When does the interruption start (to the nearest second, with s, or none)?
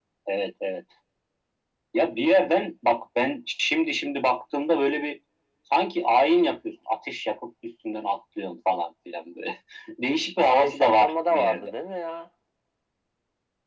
10 s